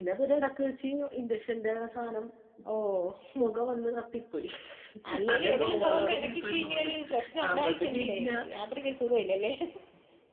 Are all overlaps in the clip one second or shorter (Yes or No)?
No